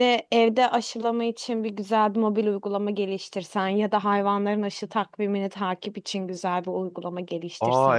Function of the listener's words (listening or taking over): taking over